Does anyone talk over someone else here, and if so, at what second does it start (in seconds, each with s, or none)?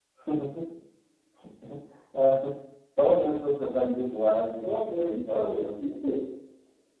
4.6 s